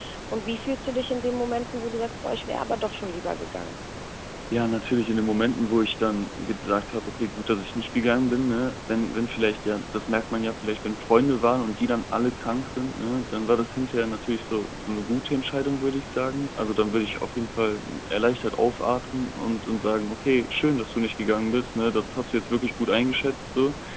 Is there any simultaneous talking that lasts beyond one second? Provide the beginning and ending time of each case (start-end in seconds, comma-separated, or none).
none